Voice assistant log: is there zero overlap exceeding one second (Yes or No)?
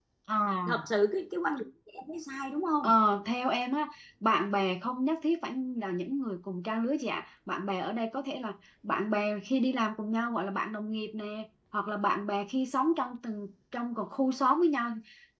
Yes